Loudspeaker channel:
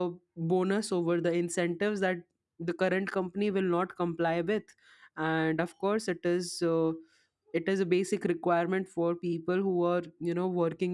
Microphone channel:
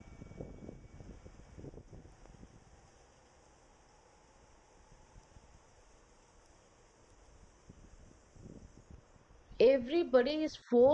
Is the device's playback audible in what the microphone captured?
No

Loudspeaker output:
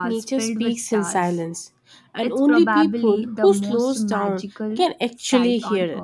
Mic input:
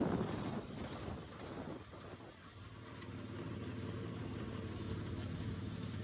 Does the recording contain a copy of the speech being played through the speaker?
No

